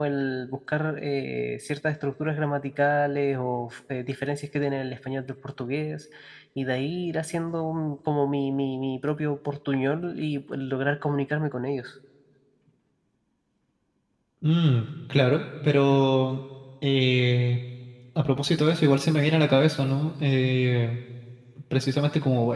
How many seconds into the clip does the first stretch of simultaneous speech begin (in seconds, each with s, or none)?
none